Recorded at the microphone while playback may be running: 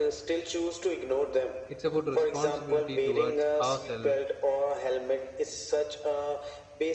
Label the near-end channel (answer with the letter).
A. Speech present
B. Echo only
A